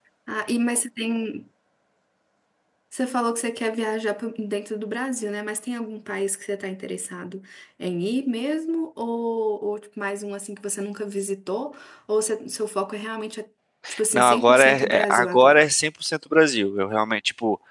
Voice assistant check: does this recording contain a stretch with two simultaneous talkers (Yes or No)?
Yes